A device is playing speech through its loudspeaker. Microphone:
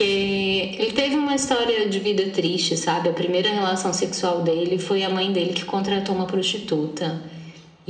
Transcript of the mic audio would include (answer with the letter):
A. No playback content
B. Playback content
B